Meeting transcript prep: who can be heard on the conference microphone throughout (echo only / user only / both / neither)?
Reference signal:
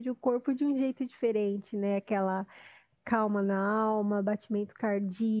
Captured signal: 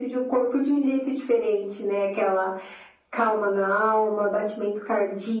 echo only